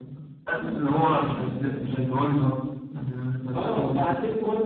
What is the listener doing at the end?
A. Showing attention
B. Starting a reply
B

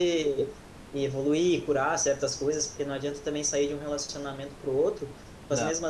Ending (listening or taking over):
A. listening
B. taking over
A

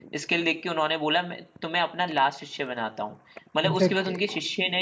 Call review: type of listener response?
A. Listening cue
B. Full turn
A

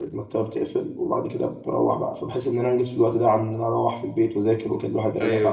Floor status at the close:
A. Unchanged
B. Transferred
B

